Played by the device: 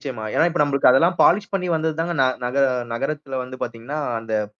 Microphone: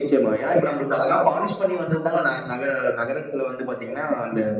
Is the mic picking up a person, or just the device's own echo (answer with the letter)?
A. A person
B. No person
B